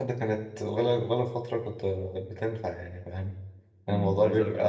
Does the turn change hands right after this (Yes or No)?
Yes